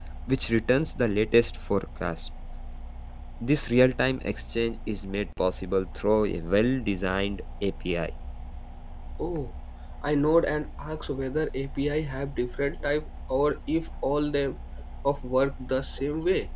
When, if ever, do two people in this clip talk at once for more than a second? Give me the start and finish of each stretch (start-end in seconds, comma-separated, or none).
none